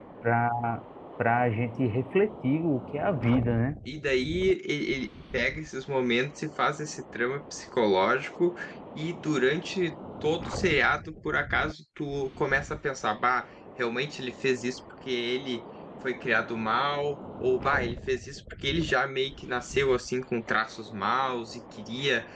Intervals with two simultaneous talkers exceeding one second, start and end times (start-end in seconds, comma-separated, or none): none